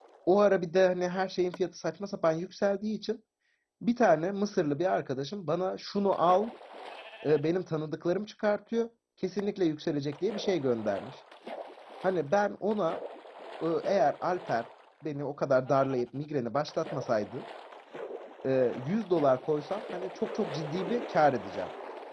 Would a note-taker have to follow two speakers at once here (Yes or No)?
No